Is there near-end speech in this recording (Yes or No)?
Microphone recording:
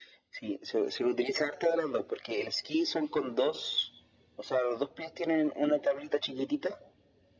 No